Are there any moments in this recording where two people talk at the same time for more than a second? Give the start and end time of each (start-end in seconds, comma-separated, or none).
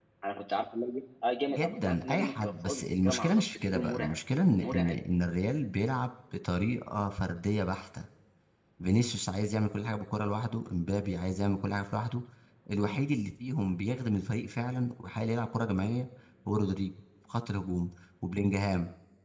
1.5-4.2